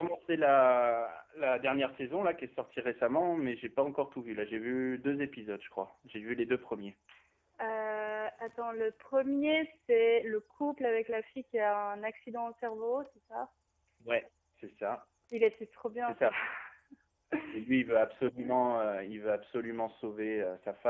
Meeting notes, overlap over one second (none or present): none